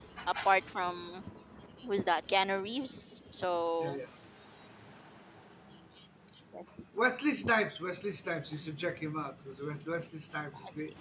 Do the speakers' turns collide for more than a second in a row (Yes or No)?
No